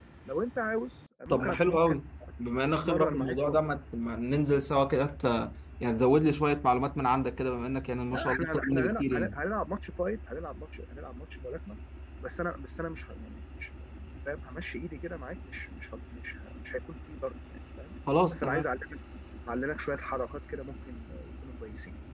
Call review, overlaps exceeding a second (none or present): present